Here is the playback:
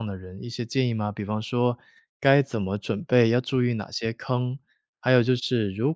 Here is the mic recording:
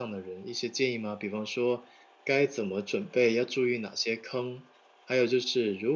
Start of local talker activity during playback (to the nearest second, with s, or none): none